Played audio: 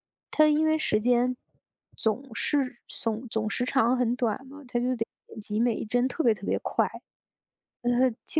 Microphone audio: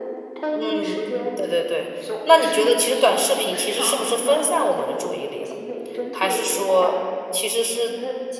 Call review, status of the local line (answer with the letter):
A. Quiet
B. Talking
B